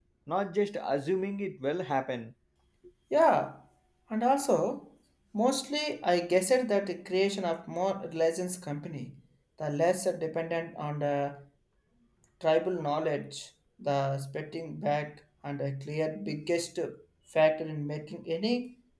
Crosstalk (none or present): none